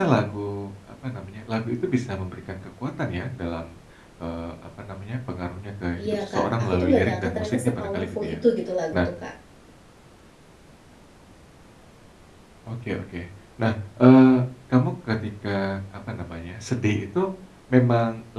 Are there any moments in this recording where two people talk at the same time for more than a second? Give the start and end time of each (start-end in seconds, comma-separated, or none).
6.0-8.4